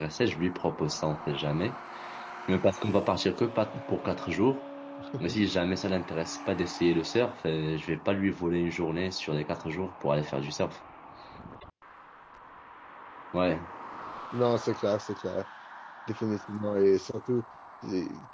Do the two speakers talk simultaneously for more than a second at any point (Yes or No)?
No